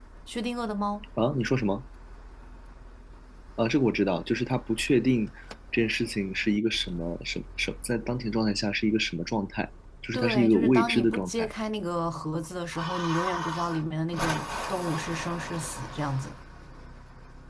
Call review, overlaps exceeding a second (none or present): present